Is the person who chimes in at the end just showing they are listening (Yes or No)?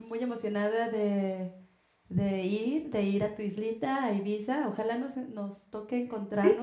No